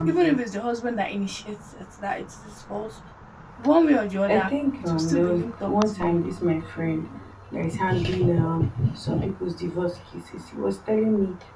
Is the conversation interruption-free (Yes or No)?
No